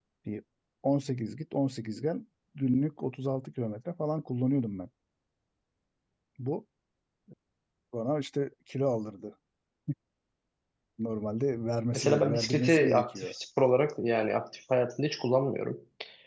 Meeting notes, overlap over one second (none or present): present